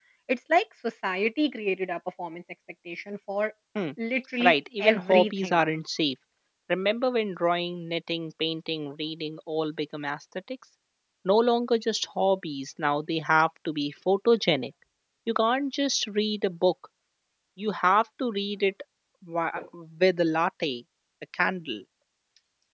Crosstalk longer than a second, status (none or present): present